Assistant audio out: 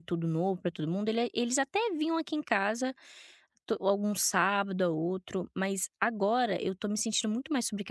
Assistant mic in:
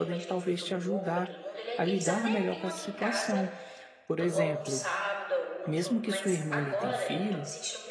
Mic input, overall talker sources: both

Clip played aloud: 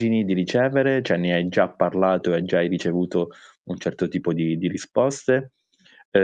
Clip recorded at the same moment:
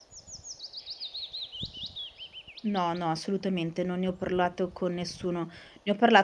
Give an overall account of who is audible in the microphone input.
user only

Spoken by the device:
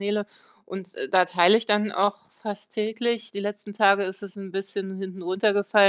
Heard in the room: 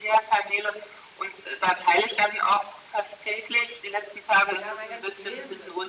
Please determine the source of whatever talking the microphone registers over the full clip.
both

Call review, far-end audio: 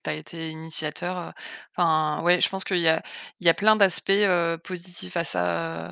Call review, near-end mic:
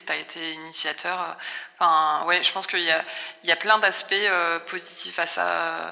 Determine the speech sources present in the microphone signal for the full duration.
echo only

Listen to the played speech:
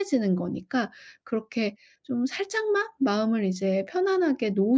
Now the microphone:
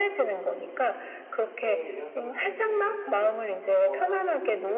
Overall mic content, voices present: both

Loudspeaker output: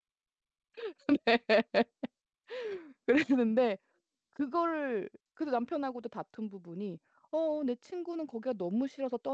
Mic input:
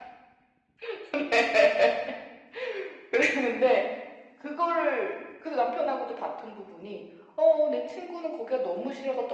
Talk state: echo only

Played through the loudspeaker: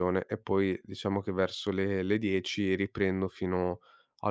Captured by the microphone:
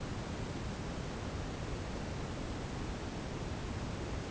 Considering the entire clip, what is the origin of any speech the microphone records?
neither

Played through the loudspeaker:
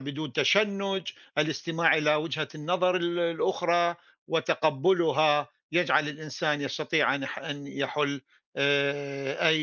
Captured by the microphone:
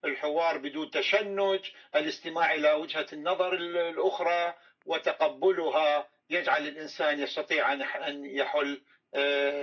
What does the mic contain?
echo only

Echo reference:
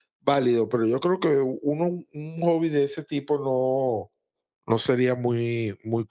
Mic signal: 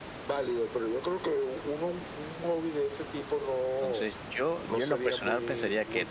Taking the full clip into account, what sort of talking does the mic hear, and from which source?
both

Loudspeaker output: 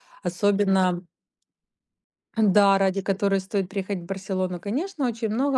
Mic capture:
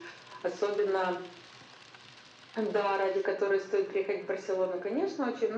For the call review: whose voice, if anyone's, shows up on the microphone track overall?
echo only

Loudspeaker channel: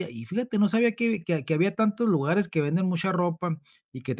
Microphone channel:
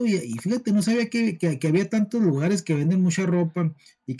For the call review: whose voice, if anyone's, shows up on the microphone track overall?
echo only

